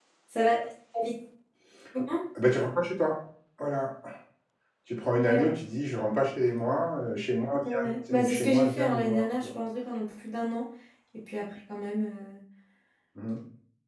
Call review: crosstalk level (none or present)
present